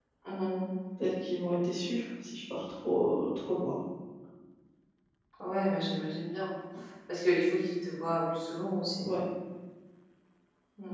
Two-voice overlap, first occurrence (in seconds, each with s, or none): none